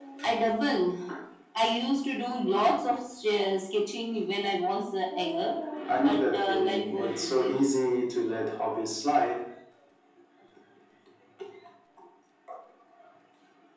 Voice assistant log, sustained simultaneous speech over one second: present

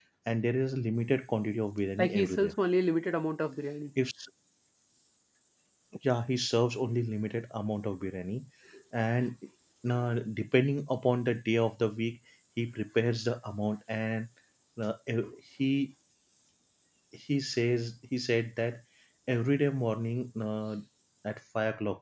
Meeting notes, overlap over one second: none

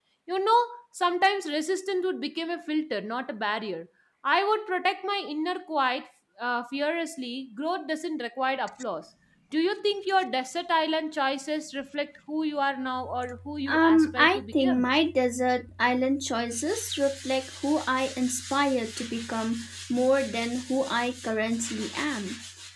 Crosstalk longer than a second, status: present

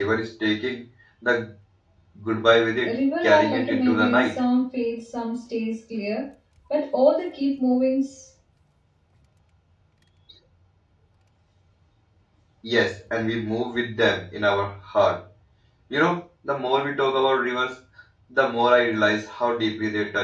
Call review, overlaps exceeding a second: present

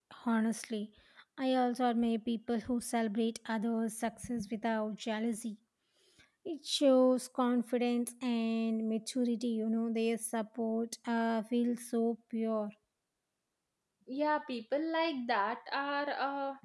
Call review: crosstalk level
none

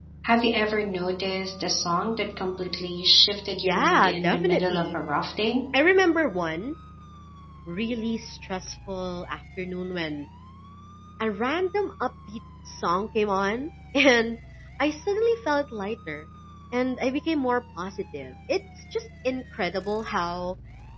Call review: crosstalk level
present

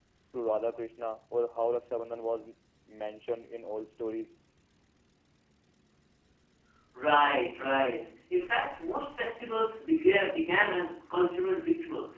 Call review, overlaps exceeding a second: none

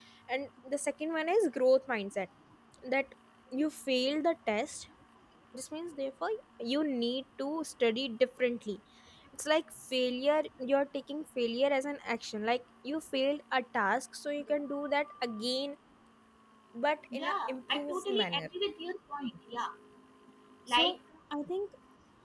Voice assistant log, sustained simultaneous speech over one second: present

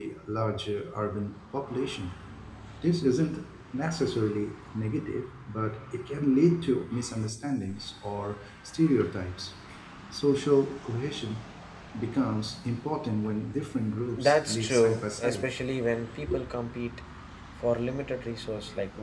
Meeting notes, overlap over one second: present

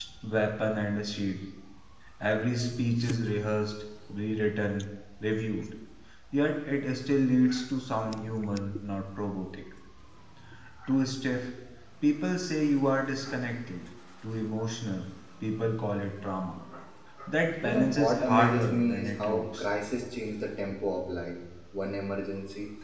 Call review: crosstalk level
present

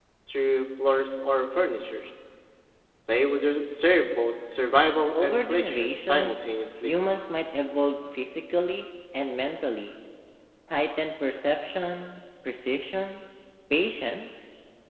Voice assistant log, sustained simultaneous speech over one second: present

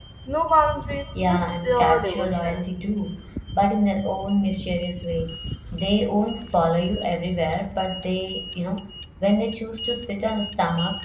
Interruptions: present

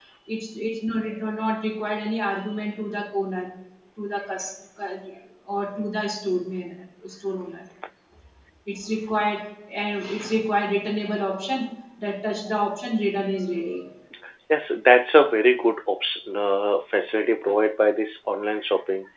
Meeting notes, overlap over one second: none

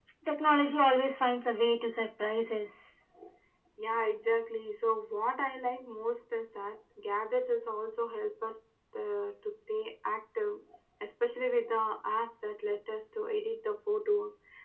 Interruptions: none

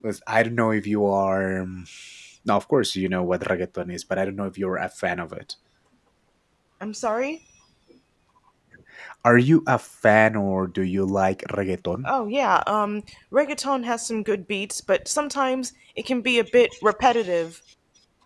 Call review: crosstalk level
none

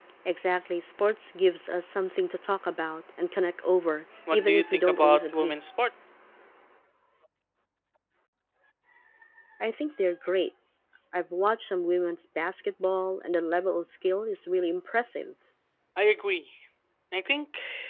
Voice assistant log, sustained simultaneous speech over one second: present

